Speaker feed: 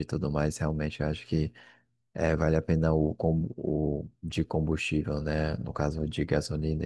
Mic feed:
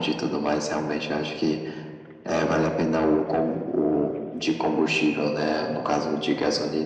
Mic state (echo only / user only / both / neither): echo only